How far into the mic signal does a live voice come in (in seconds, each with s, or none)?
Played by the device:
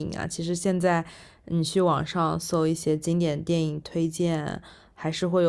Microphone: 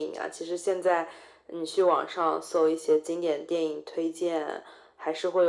none